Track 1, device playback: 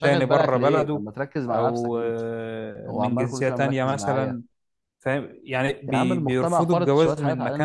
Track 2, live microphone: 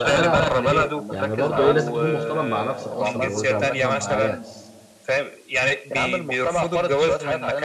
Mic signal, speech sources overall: both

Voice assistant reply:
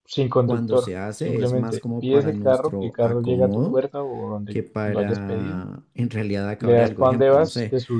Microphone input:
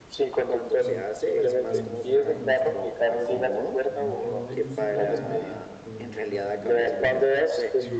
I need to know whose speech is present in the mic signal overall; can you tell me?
both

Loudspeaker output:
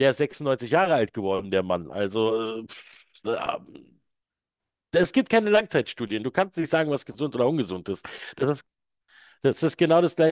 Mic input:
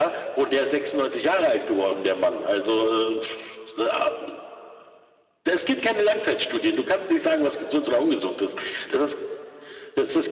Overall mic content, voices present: echo only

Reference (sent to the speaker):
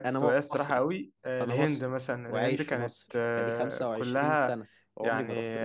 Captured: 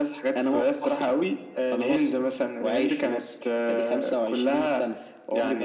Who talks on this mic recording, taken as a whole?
echo only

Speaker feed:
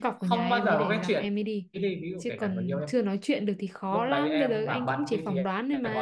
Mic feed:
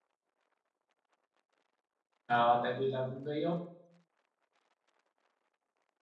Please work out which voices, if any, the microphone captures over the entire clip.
user only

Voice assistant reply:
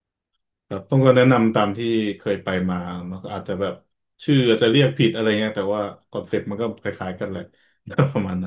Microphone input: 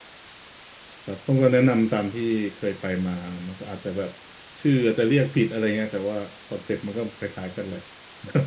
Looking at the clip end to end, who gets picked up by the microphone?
echo only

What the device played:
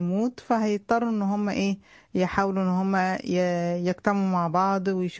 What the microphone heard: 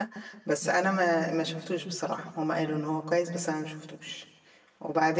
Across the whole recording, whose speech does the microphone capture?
user only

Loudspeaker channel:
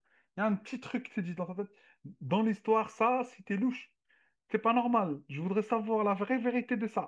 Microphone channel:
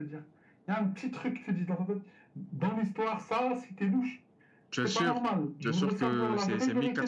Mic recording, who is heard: both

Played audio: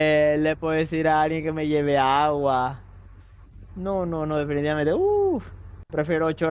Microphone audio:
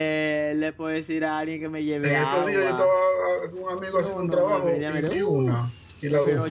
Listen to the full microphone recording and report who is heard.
both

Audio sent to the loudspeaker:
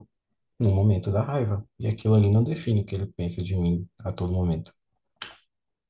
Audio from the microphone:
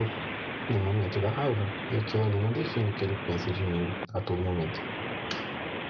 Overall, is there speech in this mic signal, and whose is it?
echo only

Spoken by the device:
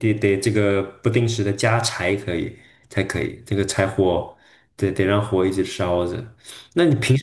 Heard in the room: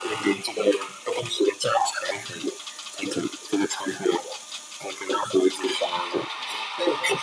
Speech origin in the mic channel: echo only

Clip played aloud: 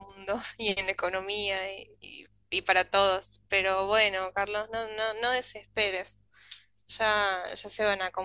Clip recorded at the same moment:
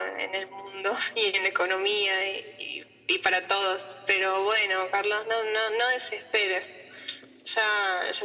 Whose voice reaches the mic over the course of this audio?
echo only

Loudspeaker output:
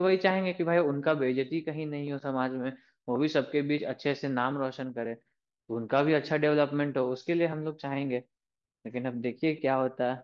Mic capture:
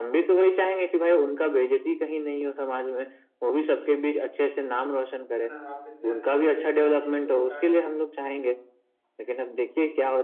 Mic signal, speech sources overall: both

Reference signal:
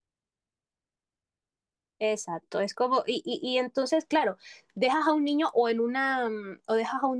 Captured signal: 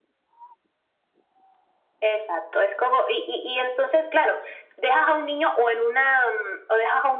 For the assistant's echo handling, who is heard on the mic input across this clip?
echo only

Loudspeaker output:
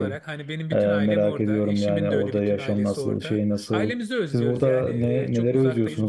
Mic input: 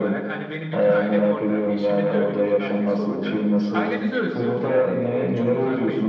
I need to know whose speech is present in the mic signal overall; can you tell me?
echo only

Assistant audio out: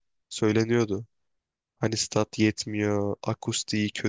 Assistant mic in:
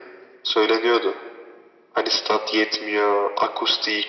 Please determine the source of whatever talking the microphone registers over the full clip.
echo only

